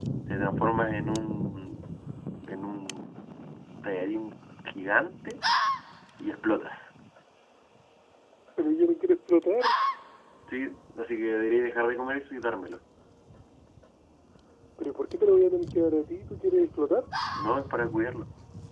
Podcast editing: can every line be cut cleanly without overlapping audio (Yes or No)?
Yes